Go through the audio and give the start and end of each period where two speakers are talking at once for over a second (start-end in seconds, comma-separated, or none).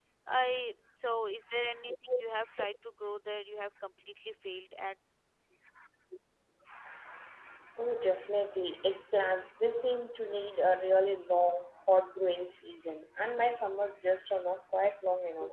none